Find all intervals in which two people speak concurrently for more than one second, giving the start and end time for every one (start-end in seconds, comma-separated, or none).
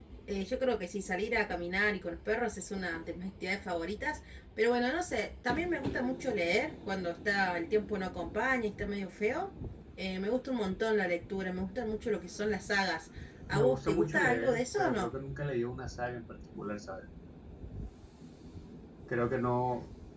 13.5-15.1